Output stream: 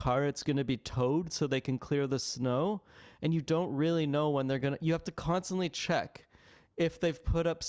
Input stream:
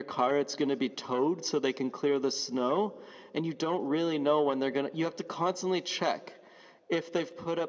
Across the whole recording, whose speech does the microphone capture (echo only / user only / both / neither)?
echo only